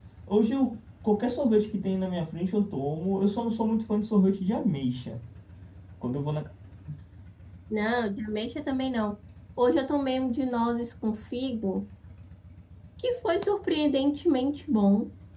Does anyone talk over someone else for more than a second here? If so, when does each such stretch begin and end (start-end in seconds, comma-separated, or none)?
none